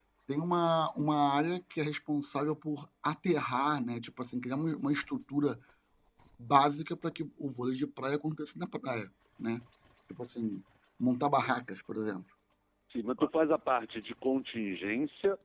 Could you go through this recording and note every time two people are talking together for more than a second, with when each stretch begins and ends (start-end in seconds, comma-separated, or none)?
none